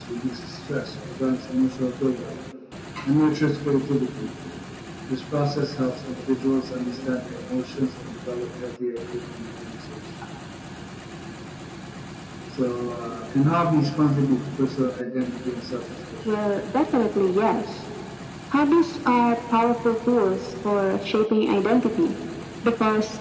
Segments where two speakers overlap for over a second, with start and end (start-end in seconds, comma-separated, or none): none